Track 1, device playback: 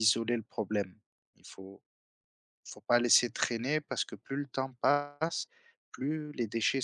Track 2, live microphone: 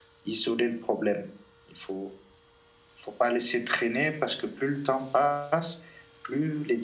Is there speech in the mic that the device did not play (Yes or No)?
No